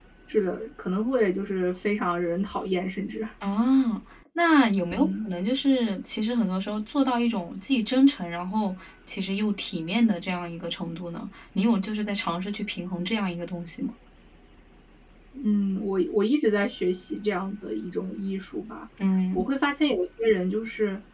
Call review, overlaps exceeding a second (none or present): none